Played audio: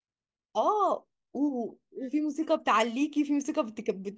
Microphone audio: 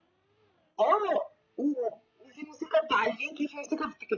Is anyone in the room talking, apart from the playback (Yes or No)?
No